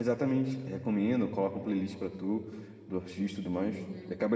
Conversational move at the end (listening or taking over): taking over